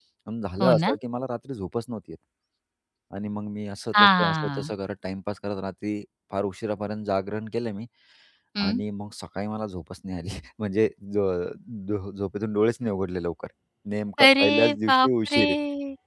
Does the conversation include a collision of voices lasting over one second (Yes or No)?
Yes